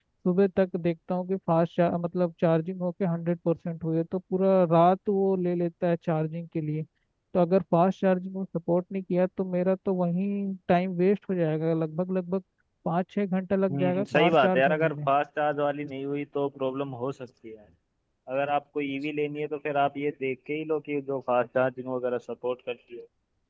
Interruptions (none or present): present